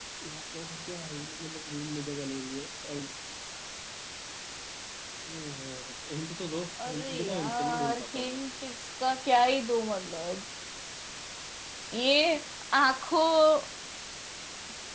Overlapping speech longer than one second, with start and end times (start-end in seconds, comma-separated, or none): 6.8-8.4